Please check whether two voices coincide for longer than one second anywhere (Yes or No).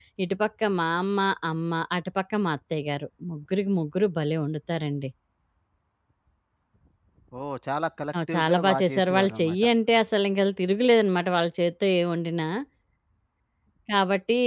Yes